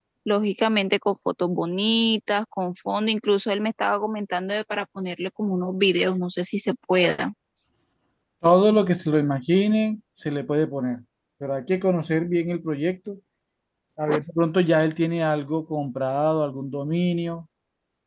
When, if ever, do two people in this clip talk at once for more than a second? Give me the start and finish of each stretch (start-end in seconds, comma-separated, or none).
none